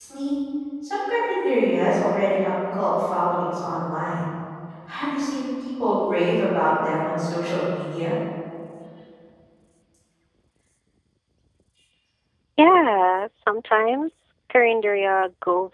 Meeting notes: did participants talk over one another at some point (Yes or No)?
No